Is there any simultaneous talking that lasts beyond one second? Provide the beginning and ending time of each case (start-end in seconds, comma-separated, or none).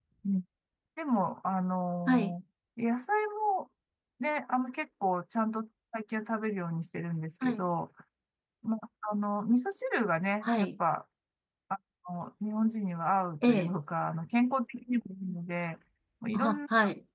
none